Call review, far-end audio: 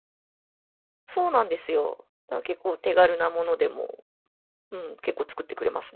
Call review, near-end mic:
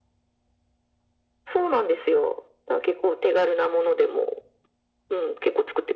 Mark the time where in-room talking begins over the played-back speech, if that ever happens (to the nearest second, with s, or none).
none